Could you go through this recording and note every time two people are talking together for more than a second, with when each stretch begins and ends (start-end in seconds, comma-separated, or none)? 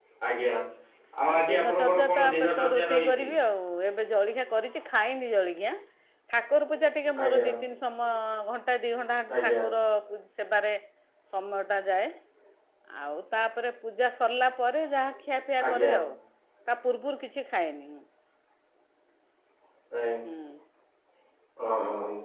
1.3-3.3